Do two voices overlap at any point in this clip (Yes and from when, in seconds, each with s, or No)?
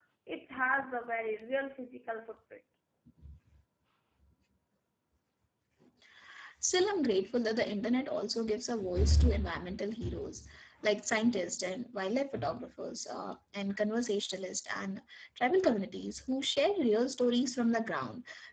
No